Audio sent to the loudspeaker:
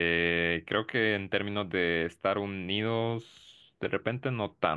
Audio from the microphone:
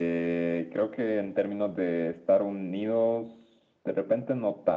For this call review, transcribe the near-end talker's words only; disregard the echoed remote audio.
none

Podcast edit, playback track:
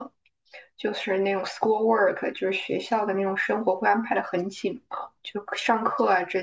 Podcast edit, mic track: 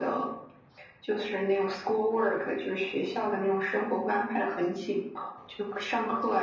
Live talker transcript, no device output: none

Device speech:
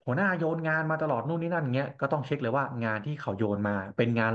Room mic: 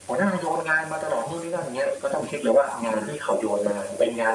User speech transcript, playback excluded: none

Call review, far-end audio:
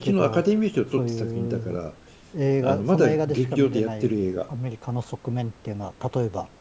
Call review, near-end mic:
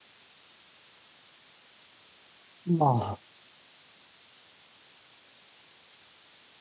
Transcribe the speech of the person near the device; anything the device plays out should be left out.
まあ、

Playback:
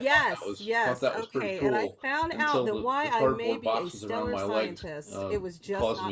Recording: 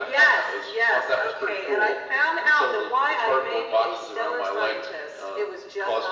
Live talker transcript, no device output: none

